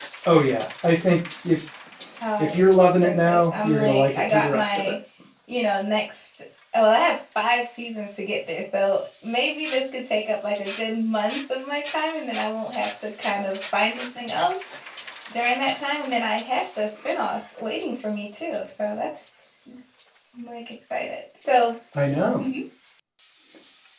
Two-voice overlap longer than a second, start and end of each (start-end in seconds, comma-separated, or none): 3.0-4.9